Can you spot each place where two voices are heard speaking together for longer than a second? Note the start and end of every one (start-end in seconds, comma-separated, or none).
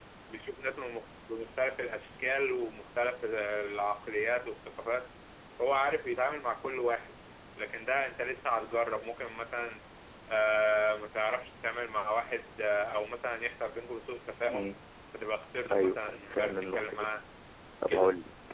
15.7-17.1